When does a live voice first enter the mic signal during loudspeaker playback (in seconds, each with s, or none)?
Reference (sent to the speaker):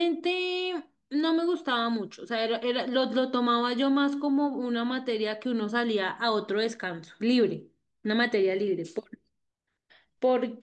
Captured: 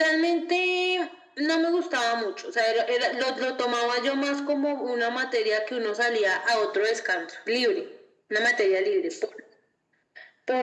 none